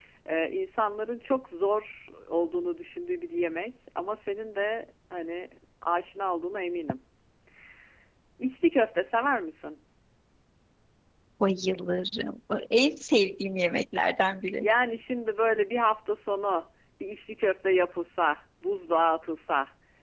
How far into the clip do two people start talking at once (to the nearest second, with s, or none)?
none